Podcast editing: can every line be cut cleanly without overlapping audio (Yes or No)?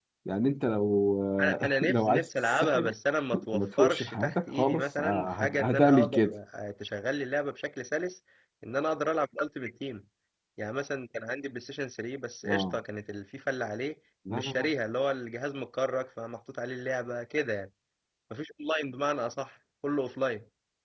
No